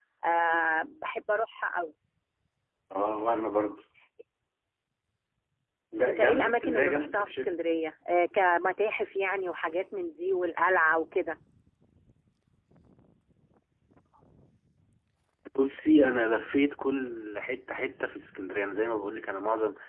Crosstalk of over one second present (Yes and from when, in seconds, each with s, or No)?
Yes, from 6.1 s